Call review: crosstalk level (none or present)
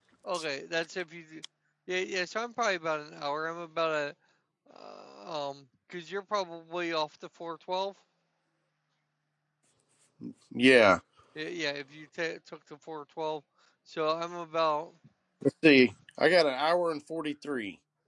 none